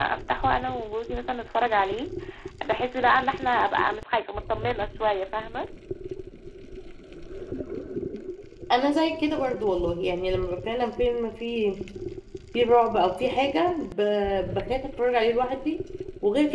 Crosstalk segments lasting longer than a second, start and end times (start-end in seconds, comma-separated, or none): none